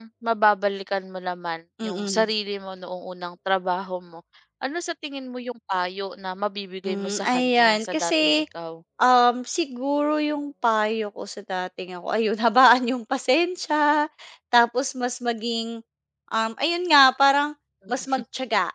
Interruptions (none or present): present